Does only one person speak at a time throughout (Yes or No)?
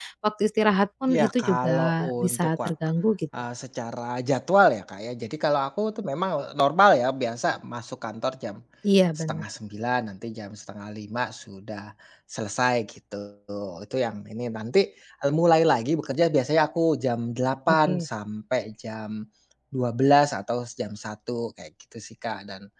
No